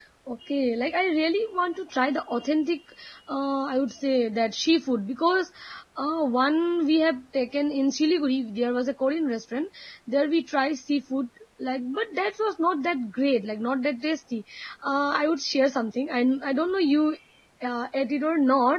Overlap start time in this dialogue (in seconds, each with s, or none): none